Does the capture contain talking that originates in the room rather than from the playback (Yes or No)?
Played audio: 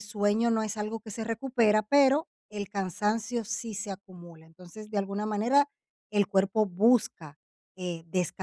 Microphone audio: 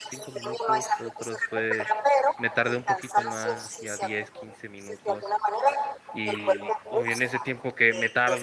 Yes